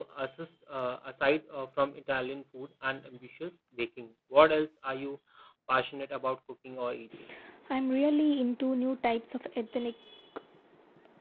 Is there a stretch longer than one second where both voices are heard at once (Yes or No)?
No